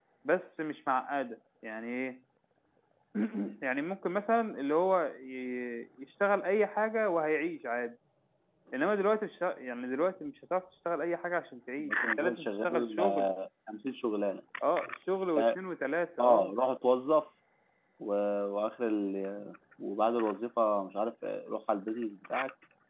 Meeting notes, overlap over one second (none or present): present